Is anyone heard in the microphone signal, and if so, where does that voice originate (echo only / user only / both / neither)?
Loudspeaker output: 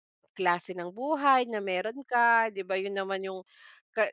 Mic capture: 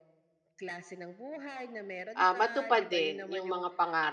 both